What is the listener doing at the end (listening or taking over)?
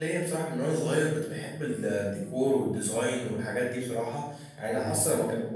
listening